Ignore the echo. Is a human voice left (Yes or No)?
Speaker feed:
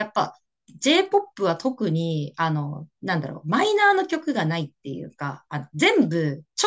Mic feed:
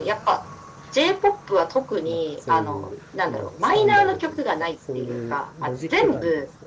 Yes